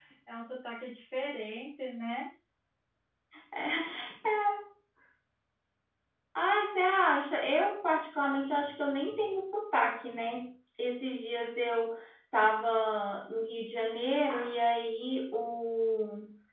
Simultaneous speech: No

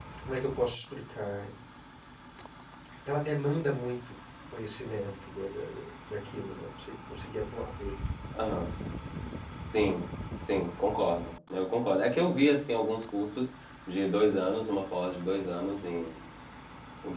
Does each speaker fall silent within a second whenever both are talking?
Yes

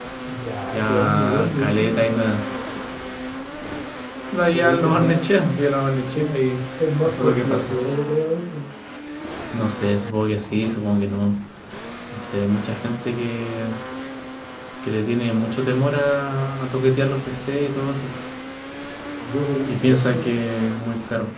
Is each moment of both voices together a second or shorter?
No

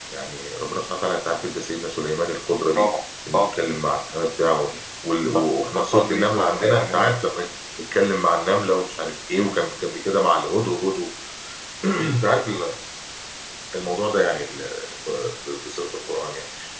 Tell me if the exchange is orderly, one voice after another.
No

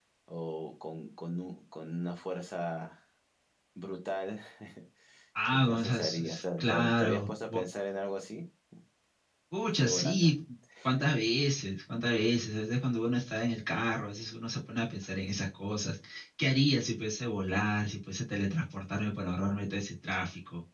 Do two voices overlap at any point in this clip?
Yes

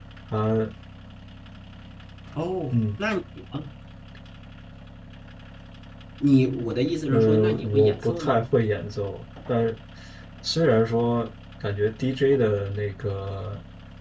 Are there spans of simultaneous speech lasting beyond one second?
Yes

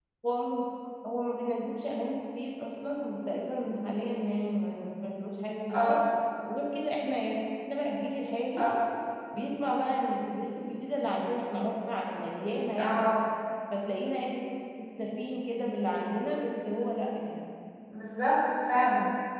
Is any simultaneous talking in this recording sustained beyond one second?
No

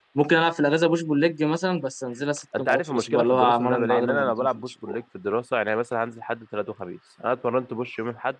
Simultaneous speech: Yes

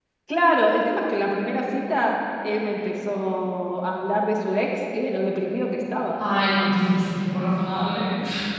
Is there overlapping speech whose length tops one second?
No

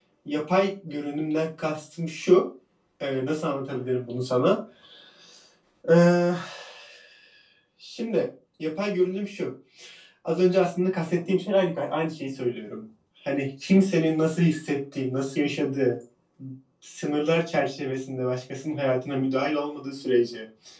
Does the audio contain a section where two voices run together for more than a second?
No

